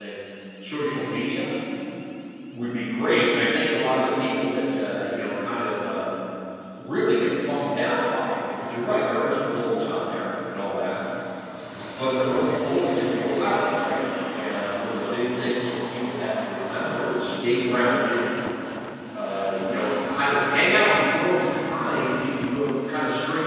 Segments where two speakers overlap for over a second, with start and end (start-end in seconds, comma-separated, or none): none